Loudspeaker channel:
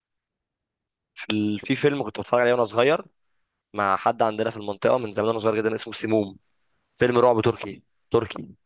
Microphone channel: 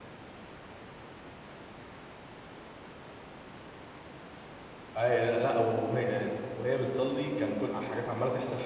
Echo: none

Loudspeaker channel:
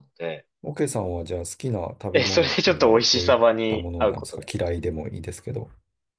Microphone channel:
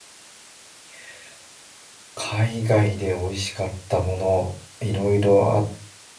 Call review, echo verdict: none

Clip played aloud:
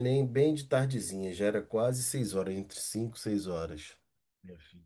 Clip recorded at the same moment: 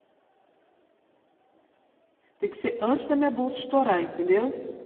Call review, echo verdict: none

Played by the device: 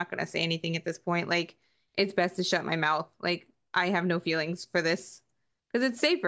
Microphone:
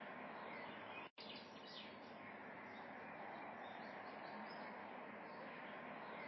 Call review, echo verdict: none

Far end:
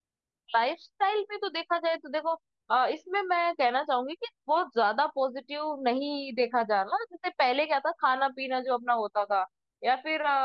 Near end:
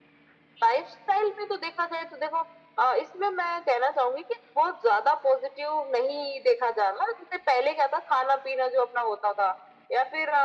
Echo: present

